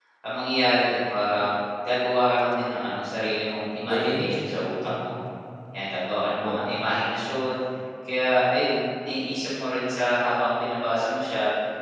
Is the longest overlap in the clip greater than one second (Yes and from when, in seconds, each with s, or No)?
Yes, from 3.9 s